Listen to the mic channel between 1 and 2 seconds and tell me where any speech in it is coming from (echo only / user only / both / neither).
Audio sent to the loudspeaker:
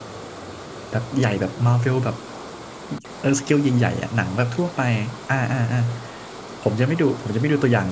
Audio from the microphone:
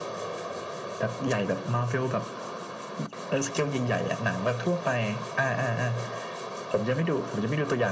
echo only